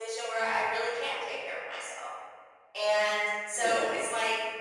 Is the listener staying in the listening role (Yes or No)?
Yes